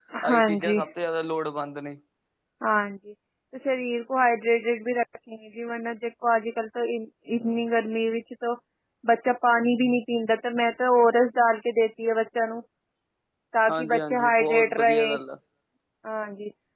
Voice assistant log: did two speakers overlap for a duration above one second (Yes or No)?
Yes